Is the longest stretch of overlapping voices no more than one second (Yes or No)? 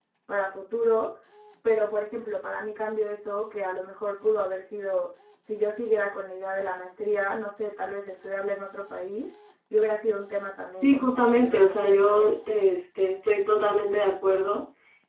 No